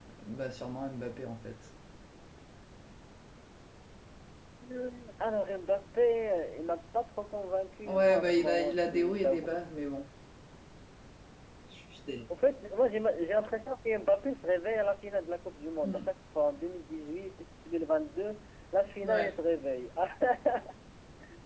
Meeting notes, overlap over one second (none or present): present